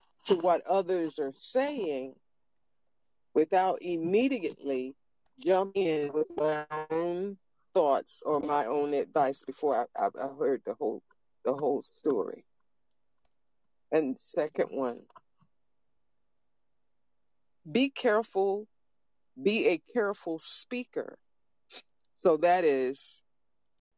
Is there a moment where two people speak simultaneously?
No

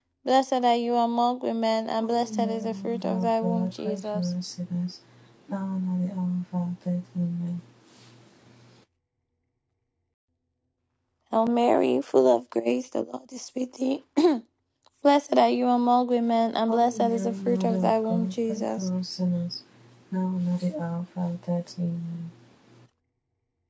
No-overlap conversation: No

